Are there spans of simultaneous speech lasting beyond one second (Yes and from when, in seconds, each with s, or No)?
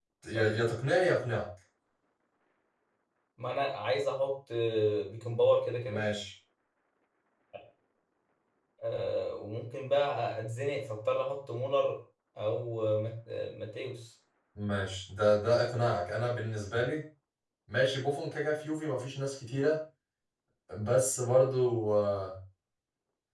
No